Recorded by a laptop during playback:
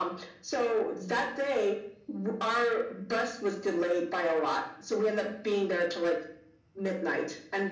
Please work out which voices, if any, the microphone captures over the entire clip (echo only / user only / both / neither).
echo only